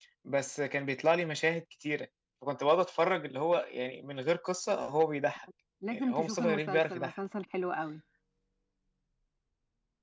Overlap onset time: 6 s

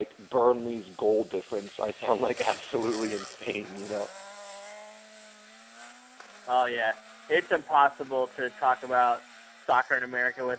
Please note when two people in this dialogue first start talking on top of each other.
none

